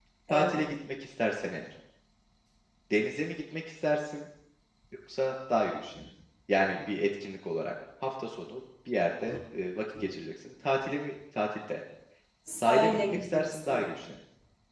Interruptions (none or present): present